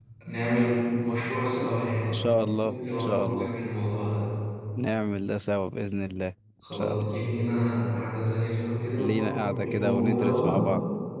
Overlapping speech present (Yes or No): Yes